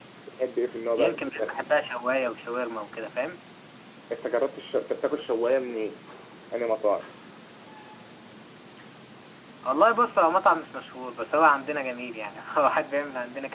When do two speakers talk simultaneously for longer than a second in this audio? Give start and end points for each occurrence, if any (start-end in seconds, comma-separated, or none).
none